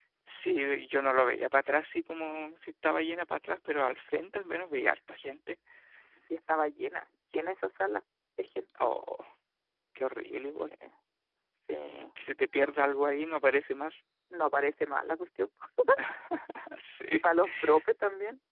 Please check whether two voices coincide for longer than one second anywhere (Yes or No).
No